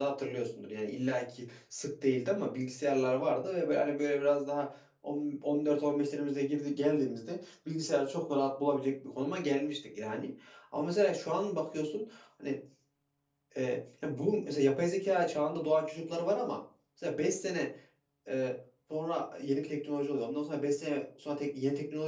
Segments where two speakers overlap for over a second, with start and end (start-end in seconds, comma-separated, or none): none